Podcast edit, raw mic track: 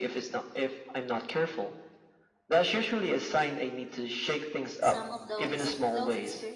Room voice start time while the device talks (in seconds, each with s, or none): 4.8 s